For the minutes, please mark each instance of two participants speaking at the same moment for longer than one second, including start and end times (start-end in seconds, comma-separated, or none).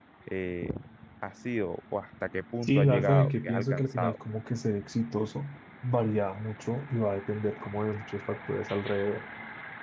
2.6-4.2